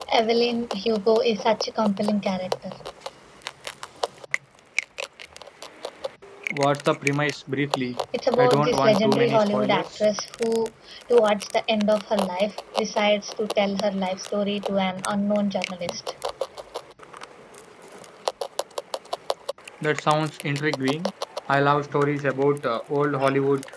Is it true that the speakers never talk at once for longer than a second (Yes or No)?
No